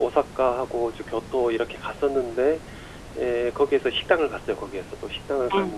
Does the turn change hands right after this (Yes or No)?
No